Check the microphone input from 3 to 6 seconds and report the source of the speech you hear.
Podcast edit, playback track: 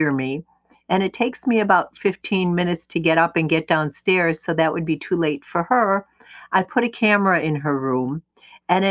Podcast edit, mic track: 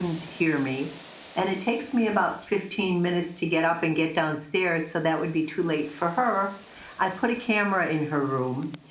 echo only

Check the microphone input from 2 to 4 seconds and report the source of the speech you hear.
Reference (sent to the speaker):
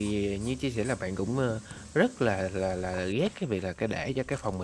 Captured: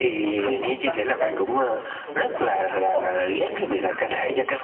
both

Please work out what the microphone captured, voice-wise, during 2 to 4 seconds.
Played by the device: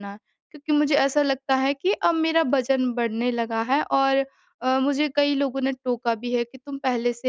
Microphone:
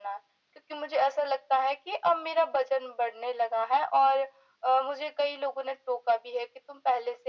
echo only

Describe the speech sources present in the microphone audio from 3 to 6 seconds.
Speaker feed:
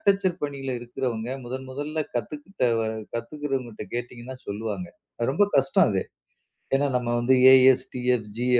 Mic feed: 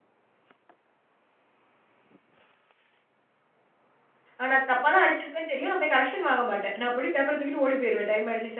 user only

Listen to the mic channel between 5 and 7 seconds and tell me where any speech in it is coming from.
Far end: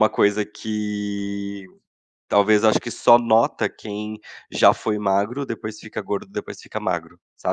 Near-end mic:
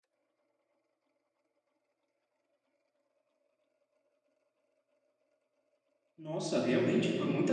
user only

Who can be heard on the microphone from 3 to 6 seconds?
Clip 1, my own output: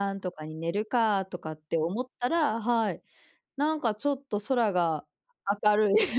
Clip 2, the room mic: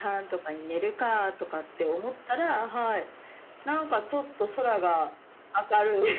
echo only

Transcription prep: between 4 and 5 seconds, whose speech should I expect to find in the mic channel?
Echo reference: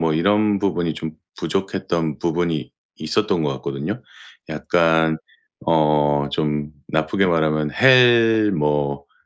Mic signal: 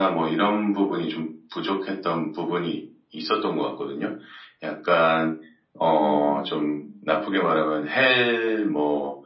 echo only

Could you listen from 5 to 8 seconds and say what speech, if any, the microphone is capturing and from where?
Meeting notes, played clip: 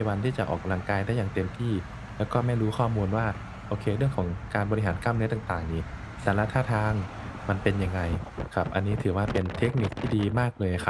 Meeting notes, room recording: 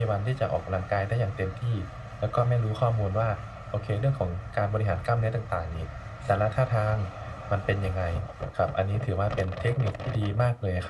echo only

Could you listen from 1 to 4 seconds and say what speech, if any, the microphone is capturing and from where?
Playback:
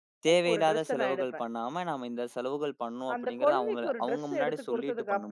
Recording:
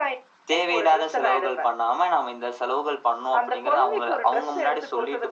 echo only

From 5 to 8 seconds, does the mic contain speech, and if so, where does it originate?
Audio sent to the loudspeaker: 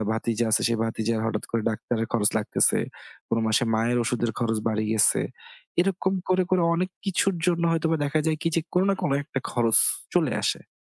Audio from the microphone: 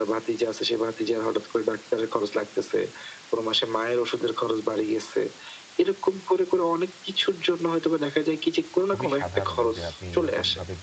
echo only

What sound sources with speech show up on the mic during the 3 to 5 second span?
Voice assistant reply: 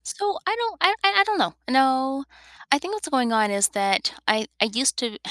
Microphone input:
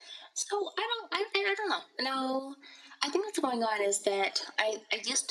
echo only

